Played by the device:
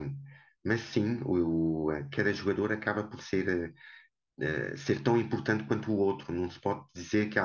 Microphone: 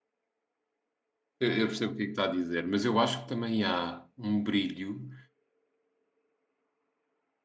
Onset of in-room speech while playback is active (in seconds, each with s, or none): 1.4 s